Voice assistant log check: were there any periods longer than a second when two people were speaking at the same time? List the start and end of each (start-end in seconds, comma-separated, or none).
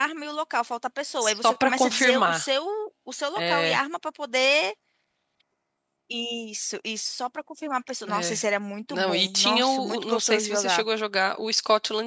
1.2-2.5, 8.9-10.8